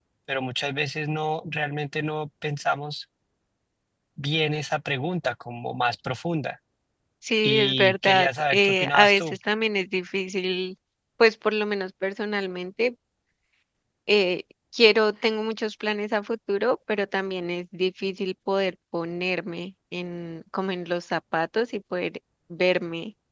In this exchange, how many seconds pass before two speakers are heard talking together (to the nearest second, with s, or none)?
7 s